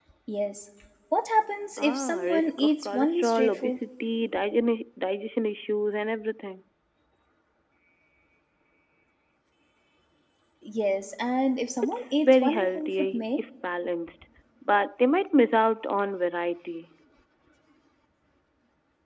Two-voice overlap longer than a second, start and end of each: 1.8-3.8, 11.8-13.4

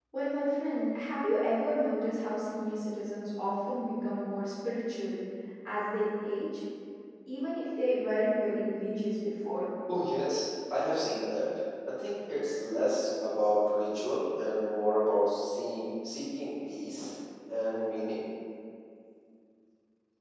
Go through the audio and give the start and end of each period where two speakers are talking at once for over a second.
none

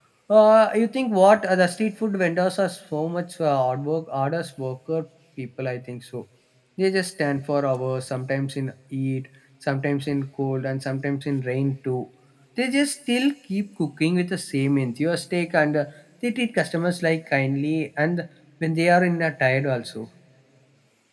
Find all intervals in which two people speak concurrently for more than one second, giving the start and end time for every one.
none

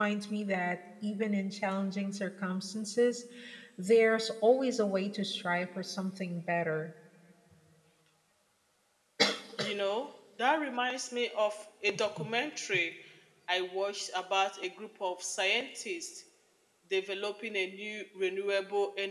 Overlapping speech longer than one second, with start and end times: none

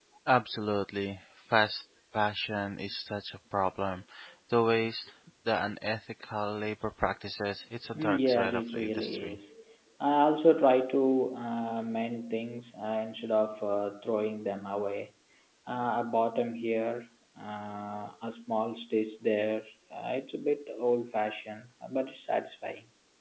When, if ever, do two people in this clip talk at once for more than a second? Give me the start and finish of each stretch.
8.0-9.4

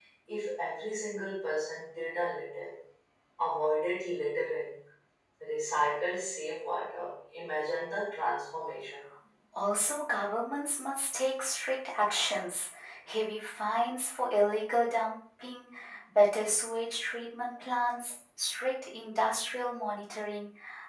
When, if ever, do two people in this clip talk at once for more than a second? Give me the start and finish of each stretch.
none

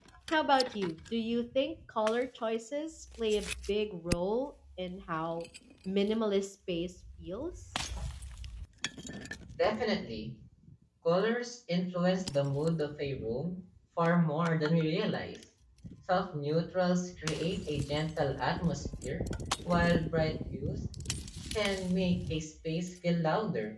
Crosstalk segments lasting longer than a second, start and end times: none

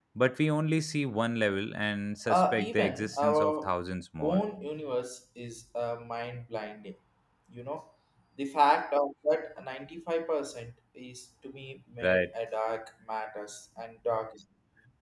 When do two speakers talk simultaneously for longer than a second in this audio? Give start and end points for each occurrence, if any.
2.3-3.7

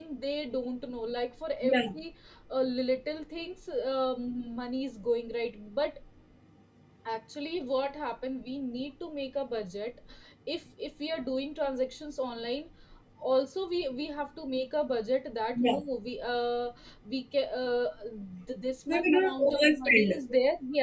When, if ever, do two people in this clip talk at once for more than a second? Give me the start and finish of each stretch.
18.9-20.2

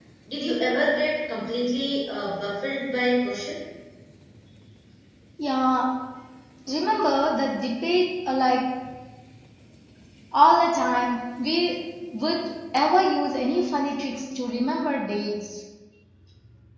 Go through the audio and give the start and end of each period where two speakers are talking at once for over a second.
none

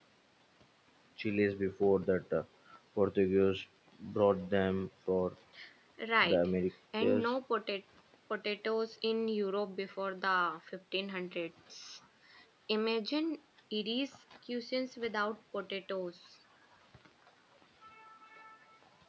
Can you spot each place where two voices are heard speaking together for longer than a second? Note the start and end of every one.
none

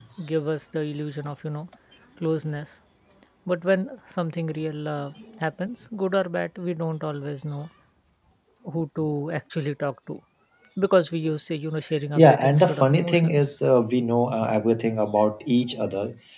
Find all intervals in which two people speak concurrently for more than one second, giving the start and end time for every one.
12.2-13.6

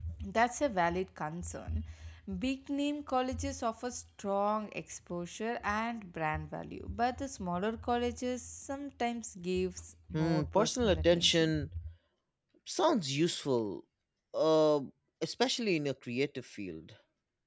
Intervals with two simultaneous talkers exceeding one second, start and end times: 10.1-11.5

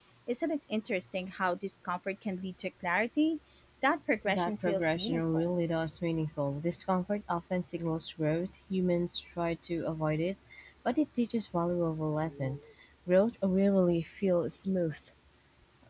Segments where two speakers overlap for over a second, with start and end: 4.3-5.5

